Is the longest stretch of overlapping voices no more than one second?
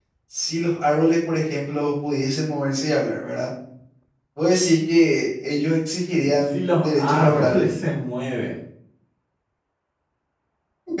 No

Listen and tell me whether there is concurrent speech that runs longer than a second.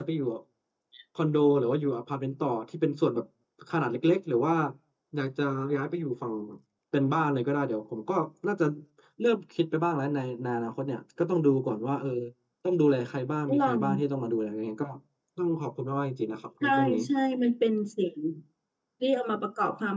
No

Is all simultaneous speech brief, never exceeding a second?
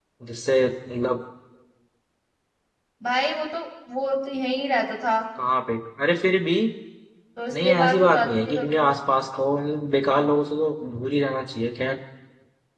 No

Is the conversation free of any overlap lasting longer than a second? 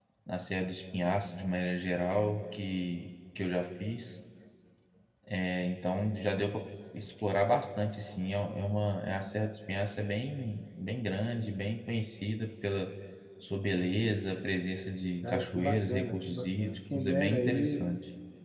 No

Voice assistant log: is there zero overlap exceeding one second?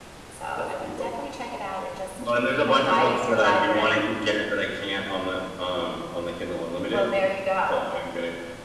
No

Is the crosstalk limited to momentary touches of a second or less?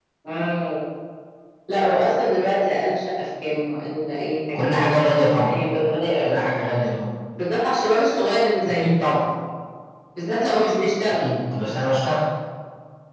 Yes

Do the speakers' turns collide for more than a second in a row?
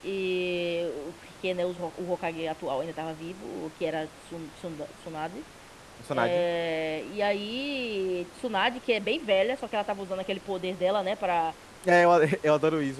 No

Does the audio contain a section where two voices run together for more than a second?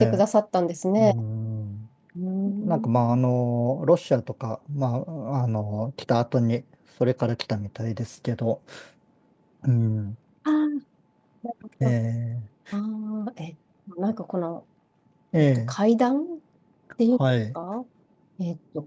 No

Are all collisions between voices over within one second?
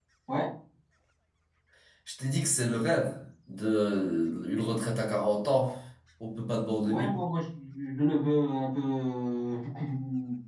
Yes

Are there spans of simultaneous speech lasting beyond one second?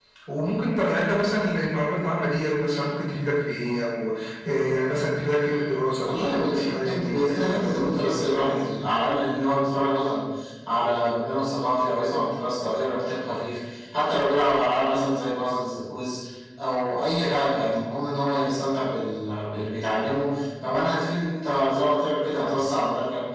Yes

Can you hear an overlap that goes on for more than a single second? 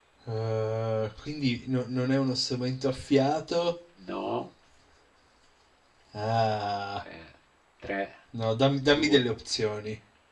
No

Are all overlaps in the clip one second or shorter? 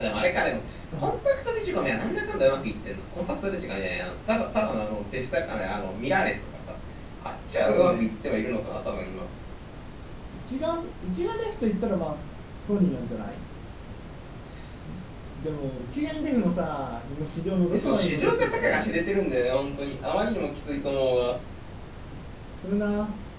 No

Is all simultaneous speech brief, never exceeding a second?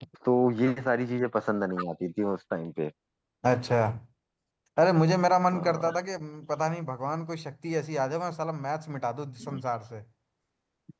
Yes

